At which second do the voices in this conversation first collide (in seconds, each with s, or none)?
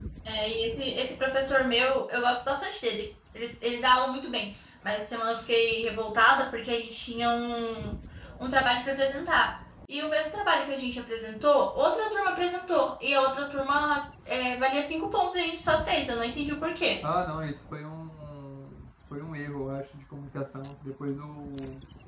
none